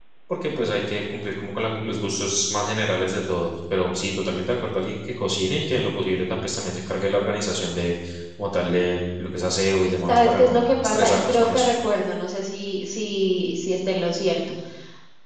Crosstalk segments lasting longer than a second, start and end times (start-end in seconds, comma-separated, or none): 10.1-11.7